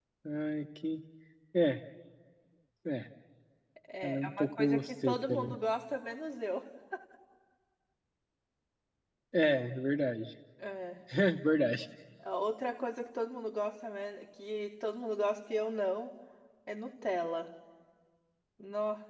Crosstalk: present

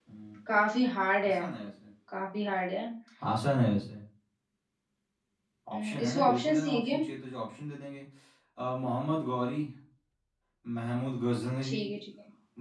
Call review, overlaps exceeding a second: present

